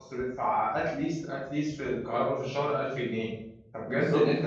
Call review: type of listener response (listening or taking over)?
listening